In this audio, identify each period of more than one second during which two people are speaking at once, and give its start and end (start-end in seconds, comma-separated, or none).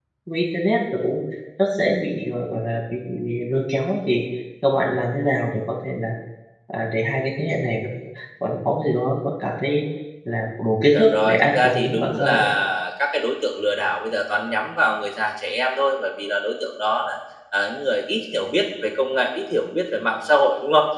10.9-12.4